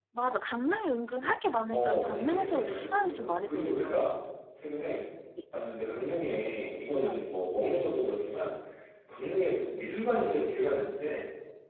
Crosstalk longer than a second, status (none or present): present